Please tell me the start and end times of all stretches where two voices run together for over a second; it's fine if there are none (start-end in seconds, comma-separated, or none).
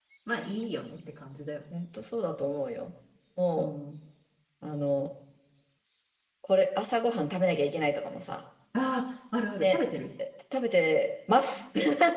none